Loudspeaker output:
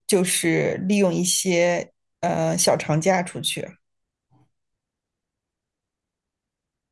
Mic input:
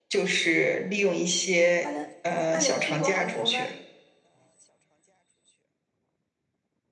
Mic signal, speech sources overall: both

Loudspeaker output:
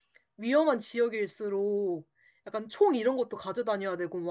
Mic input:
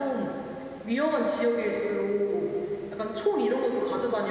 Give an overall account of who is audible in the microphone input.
echo only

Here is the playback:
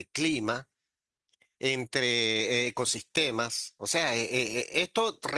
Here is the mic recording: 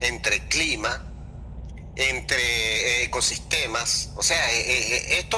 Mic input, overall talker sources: echo only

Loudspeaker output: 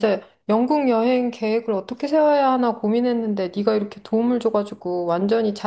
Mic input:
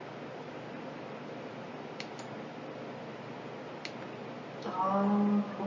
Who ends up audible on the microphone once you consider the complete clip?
user only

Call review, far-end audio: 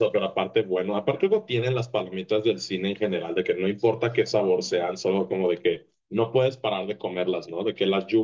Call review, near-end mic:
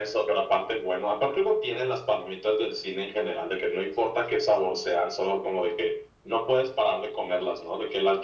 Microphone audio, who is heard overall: echo only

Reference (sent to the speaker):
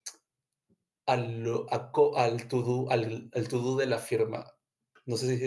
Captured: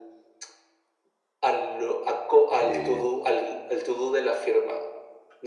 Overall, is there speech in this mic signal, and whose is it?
both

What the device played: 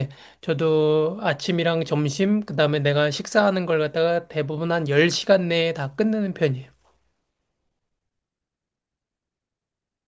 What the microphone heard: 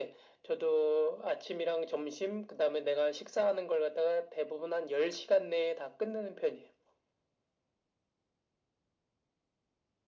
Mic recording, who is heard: echo only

